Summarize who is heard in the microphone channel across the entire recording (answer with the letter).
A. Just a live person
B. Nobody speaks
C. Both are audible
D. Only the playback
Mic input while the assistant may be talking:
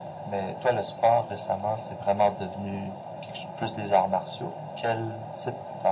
D